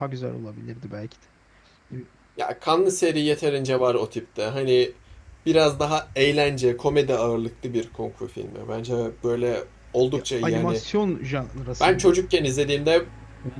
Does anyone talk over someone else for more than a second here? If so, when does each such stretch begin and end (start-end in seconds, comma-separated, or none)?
none